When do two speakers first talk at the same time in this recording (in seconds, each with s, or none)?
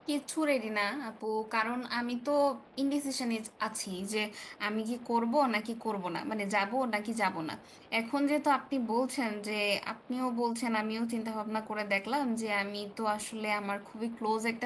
none